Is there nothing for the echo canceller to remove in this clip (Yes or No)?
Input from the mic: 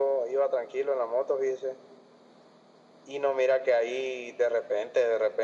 No